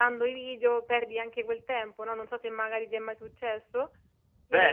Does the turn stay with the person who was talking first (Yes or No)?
No